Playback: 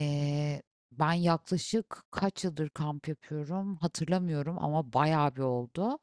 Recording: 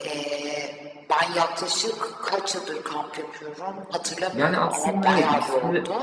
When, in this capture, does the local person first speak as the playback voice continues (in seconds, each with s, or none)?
4.3 s